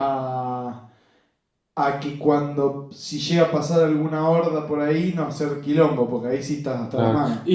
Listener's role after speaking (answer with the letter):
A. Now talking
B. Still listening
A